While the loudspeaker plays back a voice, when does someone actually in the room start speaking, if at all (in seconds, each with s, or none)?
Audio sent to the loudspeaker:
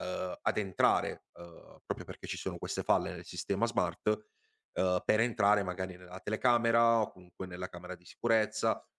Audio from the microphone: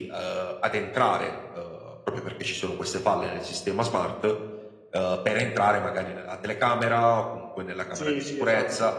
7.9 s